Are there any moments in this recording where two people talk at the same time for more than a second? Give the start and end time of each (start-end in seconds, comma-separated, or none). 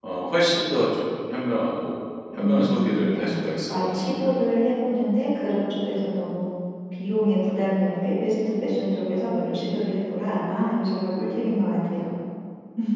2.3-4.3